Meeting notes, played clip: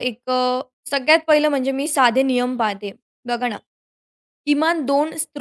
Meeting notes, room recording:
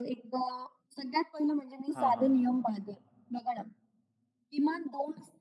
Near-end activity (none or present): present